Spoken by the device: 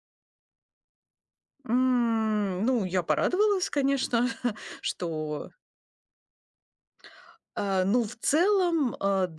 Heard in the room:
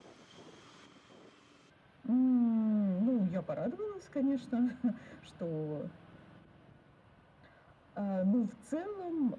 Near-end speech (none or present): none